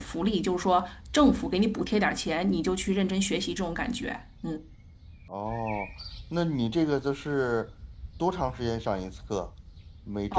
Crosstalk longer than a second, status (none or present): none